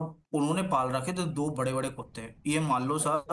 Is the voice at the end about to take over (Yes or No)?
No